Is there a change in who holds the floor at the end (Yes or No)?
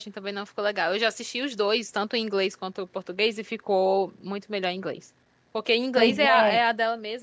No